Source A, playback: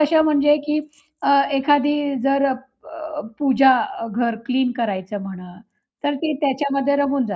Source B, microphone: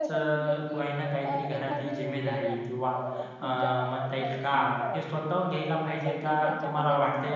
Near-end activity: present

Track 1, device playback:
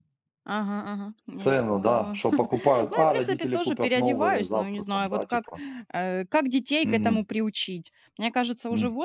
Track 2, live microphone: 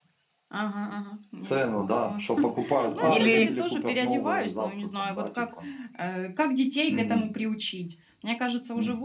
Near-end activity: present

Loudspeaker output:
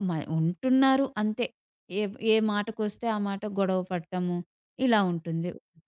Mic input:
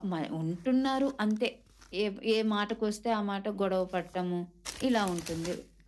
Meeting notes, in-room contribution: none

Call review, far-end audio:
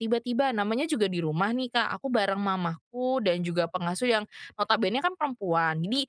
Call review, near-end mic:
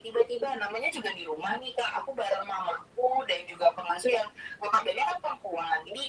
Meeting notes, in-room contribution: none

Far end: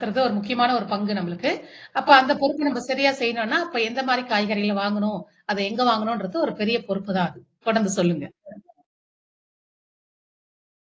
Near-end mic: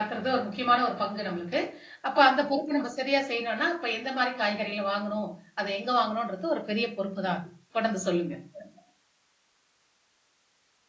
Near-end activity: none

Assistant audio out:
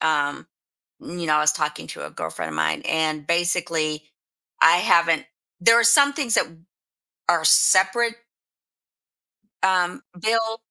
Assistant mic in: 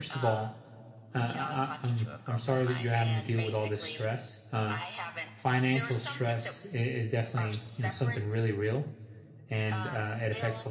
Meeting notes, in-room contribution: present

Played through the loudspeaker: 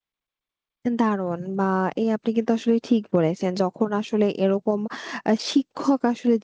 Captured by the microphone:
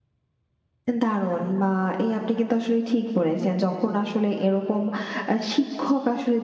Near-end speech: none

